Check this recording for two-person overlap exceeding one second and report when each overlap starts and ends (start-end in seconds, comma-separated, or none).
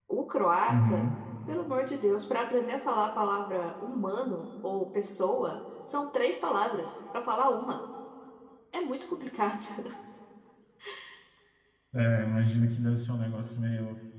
none